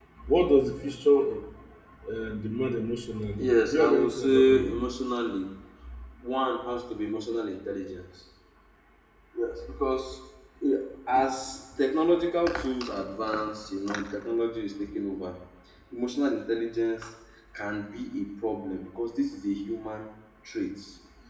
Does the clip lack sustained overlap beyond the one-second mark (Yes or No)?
No